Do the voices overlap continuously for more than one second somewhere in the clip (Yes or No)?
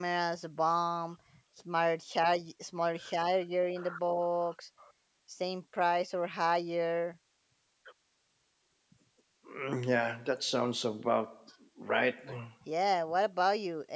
No